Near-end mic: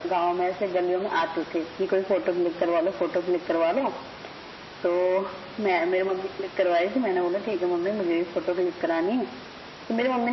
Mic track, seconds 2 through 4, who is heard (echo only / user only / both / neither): echo only